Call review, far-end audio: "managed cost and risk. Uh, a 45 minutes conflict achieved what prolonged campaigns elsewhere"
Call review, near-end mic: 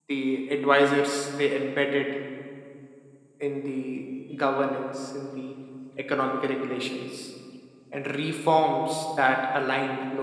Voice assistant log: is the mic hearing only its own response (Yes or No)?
No